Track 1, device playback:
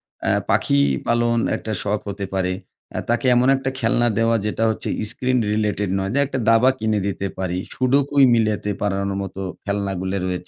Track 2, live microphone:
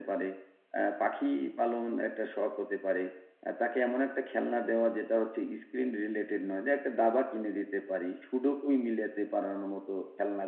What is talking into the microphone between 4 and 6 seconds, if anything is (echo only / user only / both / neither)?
echo only